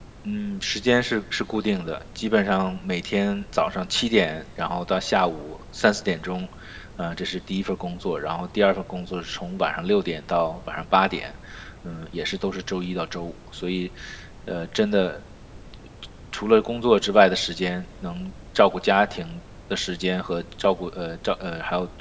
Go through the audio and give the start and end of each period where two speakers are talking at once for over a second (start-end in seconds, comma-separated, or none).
none